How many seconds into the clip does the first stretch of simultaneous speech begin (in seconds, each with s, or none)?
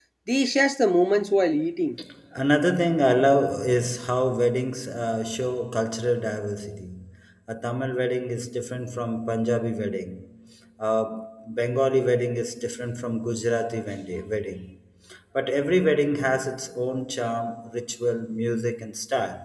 none